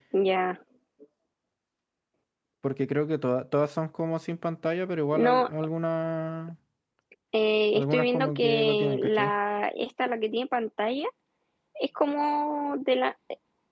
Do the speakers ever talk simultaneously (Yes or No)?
Yes